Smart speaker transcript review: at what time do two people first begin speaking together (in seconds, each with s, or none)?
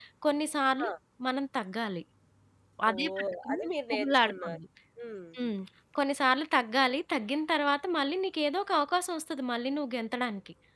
2.9 s